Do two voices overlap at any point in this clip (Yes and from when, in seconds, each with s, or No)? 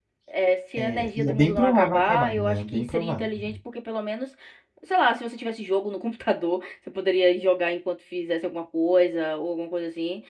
Yes, from 0.8 s